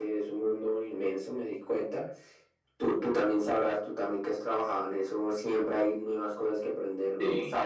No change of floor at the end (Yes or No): Yes